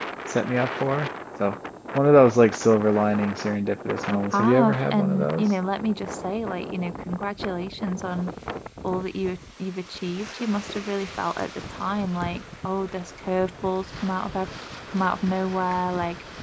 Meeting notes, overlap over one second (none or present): present